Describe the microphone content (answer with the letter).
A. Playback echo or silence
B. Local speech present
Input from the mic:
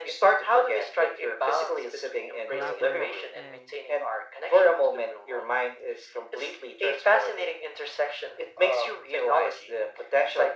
B